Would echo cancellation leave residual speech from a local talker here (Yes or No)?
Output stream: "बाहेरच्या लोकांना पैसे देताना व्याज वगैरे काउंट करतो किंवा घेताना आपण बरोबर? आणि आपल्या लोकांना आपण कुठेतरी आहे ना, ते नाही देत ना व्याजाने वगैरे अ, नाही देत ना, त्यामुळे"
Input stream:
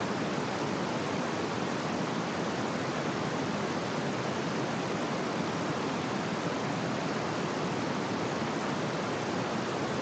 No